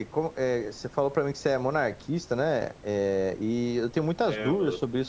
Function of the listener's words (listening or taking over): listening